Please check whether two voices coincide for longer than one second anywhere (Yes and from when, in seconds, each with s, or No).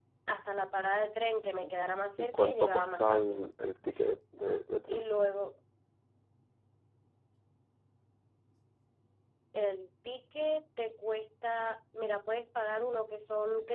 Yes, from 2.2 s